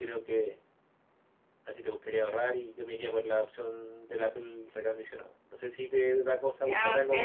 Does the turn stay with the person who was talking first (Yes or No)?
No